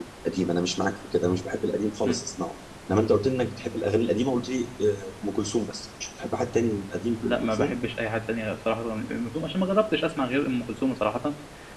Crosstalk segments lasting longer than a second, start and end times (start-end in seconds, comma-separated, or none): none